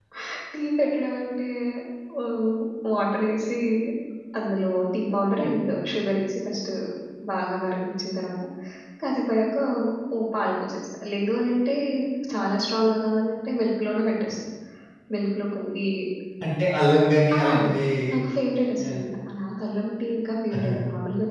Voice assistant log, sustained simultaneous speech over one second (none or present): none